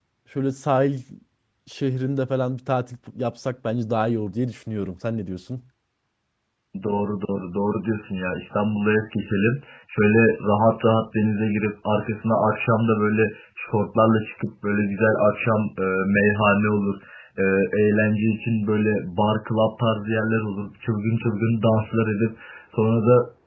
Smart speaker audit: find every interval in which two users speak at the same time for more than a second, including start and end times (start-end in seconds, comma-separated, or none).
none